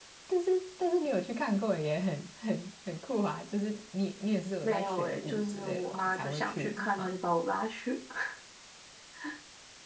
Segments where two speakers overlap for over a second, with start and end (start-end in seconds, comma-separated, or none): 4.6-7.2